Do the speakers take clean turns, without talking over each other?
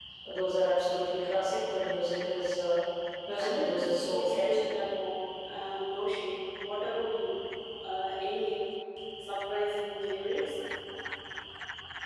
No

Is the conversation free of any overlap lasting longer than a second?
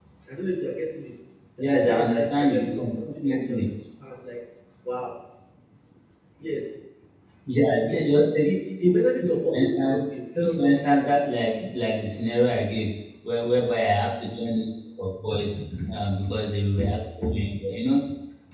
No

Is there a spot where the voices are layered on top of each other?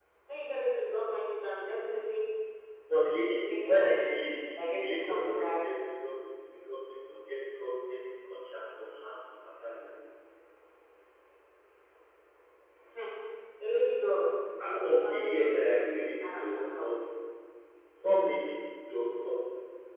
Yes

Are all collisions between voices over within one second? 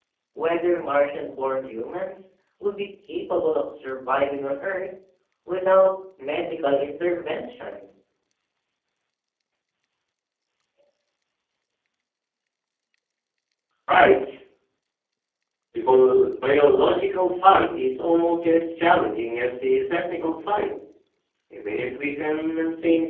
Yes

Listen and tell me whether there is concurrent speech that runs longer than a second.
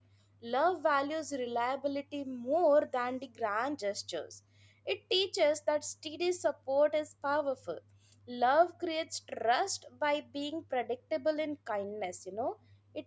No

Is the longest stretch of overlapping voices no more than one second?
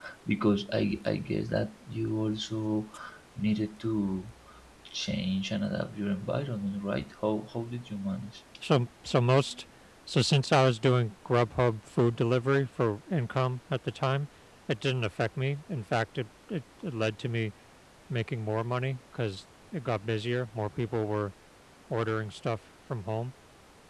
Yes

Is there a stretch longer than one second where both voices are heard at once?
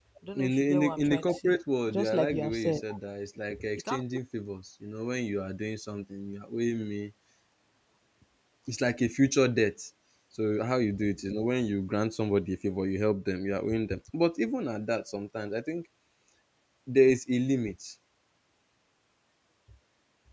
Yes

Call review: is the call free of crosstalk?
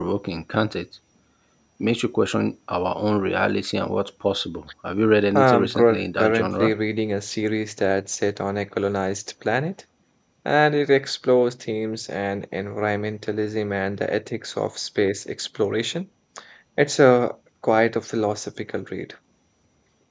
No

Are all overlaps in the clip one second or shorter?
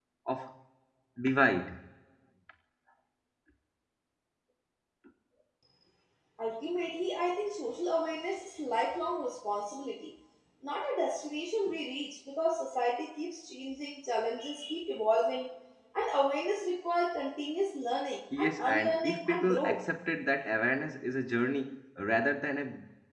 No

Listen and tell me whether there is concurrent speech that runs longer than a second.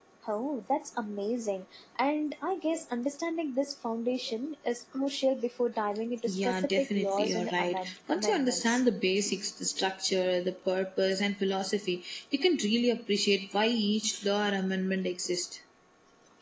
Yes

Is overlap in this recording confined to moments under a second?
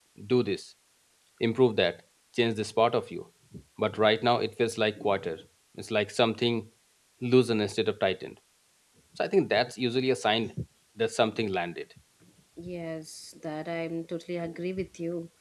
Yes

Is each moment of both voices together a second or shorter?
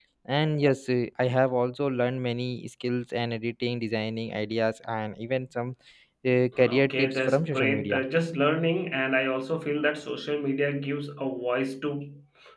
No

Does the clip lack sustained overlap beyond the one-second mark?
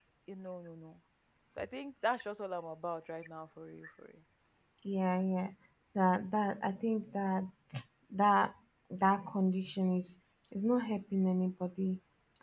Yes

